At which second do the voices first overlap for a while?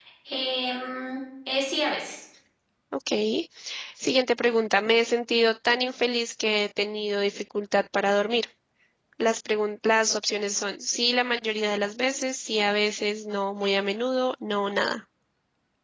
none

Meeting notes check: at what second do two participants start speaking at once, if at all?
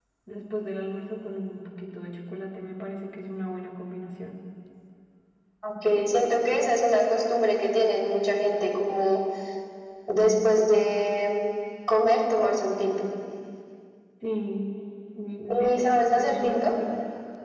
15.5 s

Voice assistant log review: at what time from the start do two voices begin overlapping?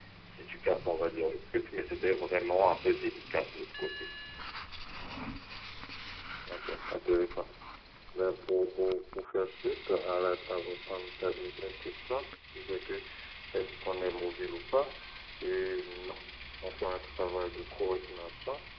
none

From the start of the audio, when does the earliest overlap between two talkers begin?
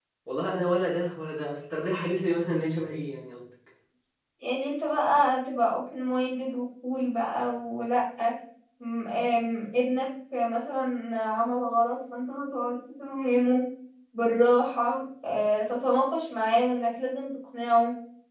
none

